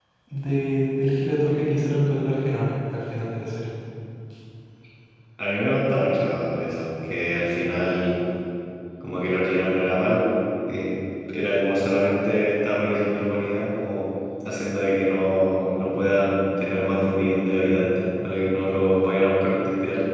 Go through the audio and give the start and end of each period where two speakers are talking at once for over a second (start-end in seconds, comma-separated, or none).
none